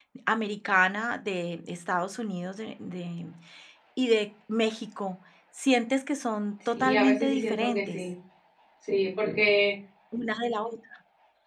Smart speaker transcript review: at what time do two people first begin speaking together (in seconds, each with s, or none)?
6.7 s